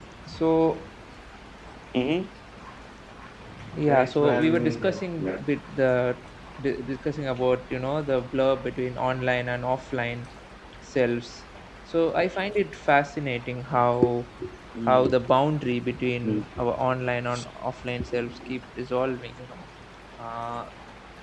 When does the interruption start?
3.9 s

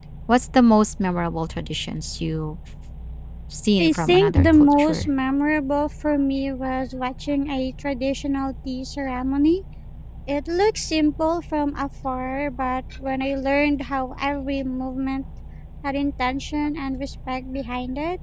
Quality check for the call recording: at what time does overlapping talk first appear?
3.8 s

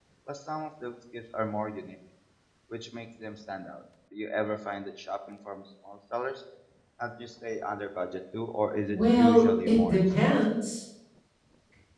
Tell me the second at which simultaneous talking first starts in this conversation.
8.9 s

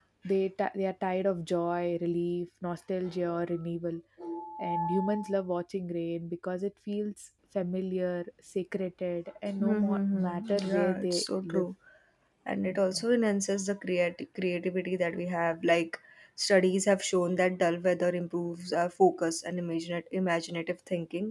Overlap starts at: 9.6 s

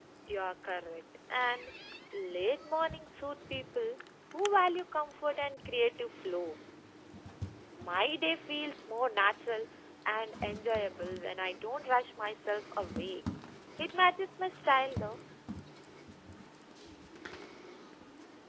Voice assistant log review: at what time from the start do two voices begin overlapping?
none

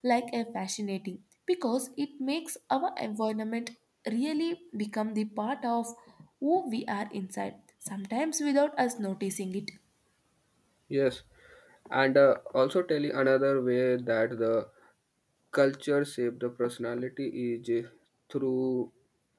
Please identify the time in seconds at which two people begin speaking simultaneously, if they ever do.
none

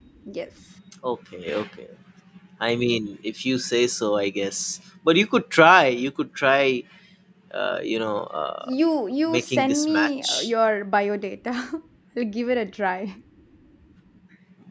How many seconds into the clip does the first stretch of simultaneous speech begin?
9.3 s

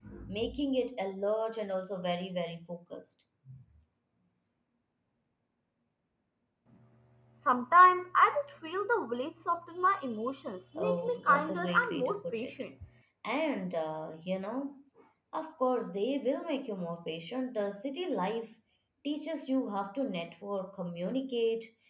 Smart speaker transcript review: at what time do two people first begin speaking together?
10.8 s

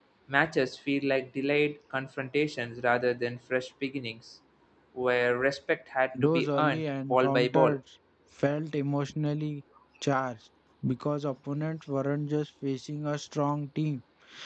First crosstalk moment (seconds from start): 6.1 s

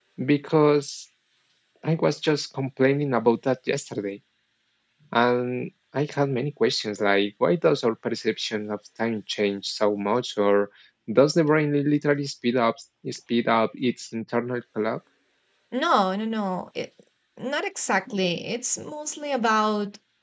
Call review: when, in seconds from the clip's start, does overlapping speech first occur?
none

